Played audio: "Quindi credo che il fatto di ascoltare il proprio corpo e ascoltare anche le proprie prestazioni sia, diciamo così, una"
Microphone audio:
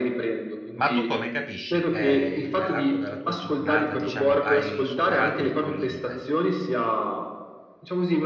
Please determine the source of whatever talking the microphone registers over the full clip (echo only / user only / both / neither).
both